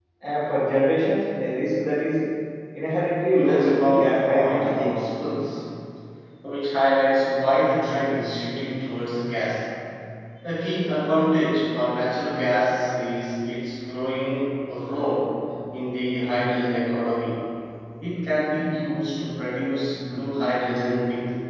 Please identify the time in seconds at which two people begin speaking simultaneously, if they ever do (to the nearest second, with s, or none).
3 s